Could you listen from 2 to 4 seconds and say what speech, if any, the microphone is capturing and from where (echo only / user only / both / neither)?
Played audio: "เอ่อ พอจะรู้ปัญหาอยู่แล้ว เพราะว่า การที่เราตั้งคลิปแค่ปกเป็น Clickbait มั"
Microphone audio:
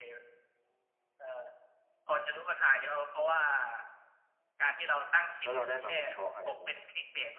echo only